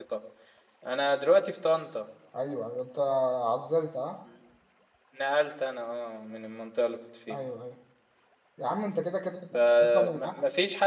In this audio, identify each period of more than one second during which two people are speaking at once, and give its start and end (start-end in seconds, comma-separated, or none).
none